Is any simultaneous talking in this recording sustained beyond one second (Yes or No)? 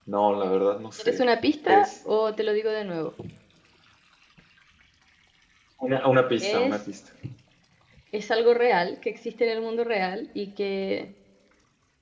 No